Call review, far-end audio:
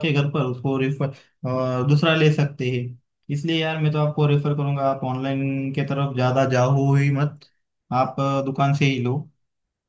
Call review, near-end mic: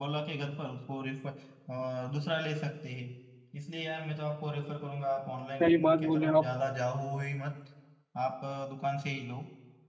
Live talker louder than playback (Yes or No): Yes